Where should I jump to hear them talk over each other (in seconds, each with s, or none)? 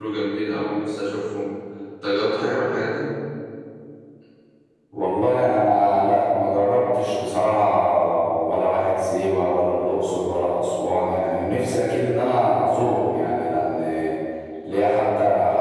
none